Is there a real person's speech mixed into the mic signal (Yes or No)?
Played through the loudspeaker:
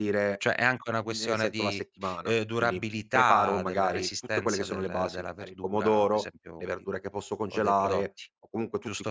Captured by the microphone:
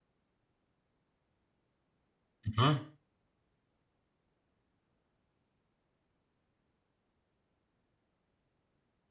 Yes